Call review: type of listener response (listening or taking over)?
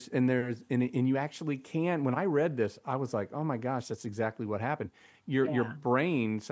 listening